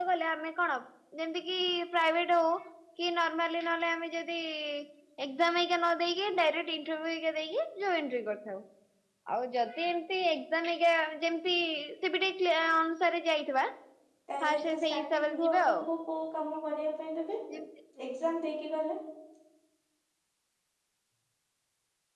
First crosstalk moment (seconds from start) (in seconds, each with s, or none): 14.5 s